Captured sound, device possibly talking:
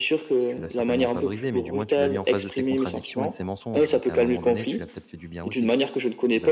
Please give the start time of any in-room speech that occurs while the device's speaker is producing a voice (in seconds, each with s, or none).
0.4 s